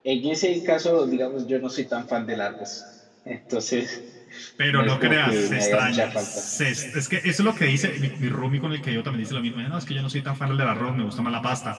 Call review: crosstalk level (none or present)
present